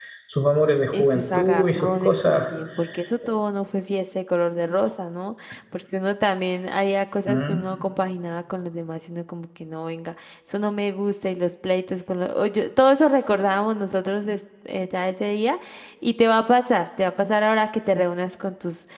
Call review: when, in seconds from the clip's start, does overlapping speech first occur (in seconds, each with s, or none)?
0.9 s